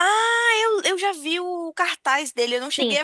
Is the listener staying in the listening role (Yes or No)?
No